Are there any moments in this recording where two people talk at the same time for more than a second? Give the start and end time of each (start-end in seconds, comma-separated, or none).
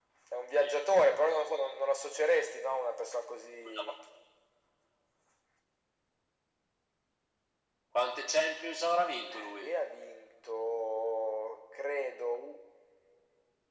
none